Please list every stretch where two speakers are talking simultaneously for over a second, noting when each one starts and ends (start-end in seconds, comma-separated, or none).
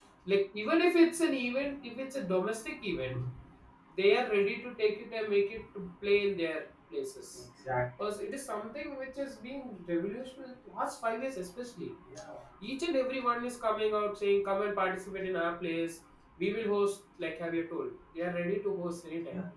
none